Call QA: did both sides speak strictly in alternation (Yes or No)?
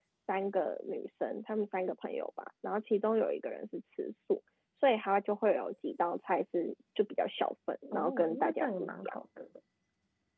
No